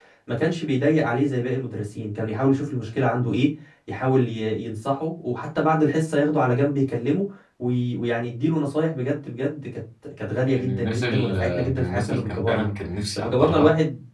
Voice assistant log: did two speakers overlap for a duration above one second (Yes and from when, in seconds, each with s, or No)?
Yes, from 10.5 s